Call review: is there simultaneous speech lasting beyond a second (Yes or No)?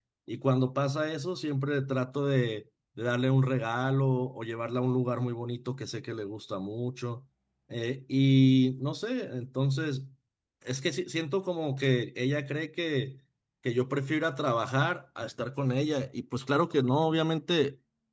No